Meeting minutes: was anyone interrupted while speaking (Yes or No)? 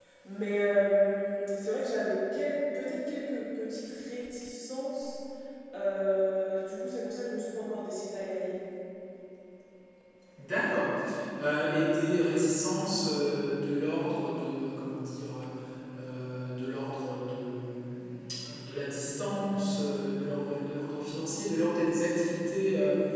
No